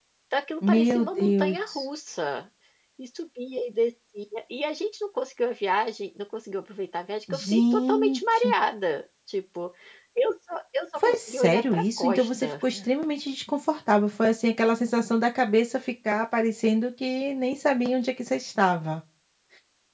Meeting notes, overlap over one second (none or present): present